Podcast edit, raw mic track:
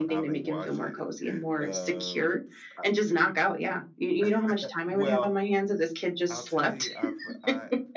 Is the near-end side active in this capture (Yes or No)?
Yes